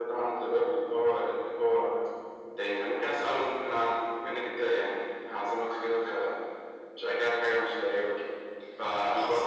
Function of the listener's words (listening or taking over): listening